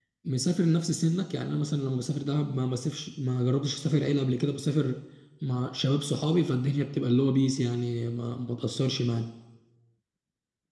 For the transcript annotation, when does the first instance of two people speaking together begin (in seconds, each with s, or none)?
none